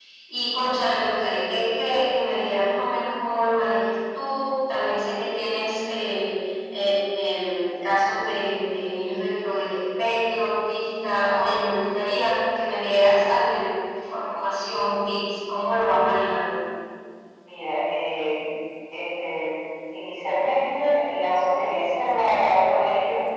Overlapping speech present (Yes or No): No